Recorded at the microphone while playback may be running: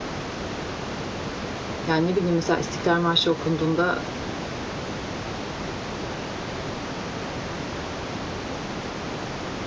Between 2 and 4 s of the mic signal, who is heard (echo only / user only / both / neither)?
user only